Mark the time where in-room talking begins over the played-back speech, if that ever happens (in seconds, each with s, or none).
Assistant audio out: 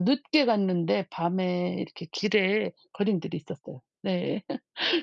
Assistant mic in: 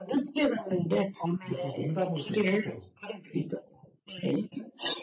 1.4 s